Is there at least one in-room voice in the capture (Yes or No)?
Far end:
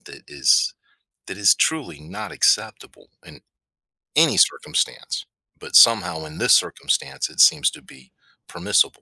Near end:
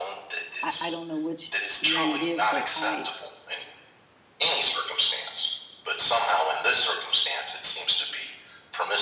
Yes